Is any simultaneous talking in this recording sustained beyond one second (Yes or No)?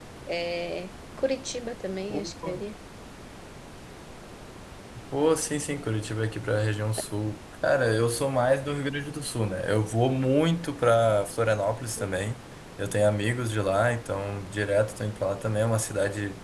No